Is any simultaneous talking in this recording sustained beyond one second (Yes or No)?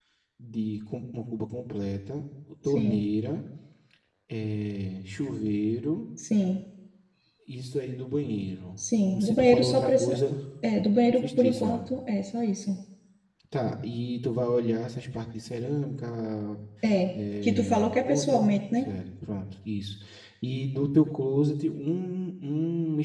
Yes